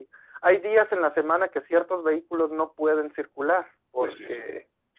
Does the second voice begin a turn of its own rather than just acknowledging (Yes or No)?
Yes